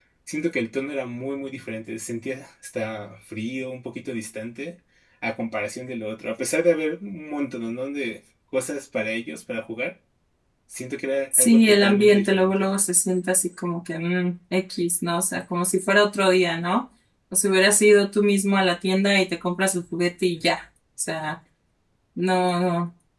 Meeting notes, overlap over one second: present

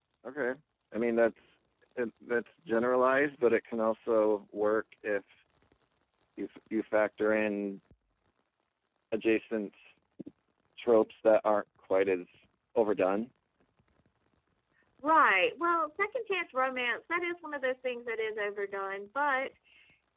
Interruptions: none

